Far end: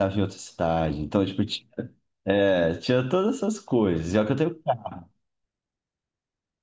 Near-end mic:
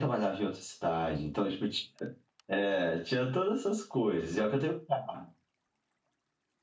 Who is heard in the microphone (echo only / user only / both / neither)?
echo only